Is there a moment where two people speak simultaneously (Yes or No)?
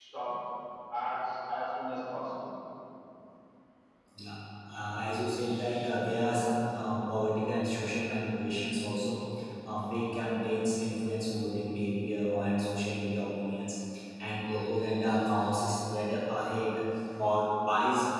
No